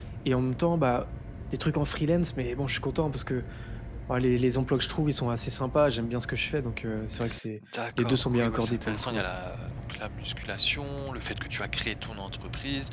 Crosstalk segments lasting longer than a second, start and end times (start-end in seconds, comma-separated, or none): 8.0-9.2